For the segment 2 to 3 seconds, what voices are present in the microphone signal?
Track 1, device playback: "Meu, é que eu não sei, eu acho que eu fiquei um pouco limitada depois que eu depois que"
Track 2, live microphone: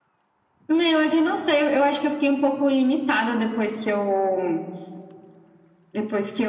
echo only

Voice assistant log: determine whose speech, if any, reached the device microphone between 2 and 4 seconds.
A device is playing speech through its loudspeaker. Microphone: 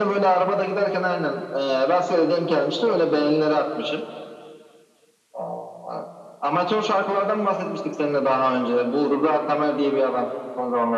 echo only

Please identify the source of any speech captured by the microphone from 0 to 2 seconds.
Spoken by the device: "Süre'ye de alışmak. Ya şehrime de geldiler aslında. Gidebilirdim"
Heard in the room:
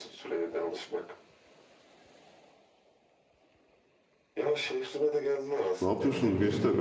echo only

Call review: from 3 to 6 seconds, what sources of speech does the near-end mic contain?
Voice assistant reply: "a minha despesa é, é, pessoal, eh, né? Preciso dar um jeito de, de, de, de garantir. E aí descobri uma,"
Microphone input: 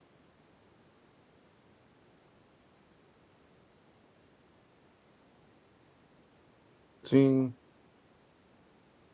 neither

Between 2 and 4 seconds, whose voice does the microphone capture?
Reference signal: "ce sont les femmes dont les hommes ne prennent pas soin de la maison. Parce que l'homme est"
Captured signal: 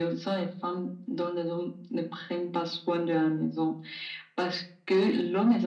echo only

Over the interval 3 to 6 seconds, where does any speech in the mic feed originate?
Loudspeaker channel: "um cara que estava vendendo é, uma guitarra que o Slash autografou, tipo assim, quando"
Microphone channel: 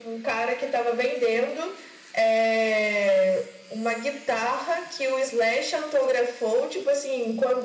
echo only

